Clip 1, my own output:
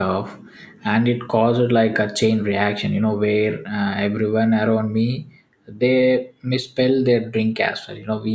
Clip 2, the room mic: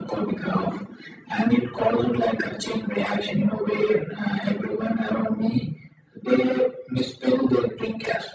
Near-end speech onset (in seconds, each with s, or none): none